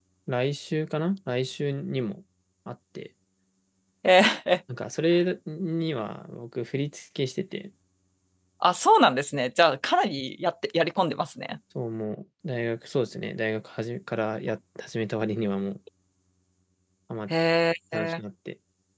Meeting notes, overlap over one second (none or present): none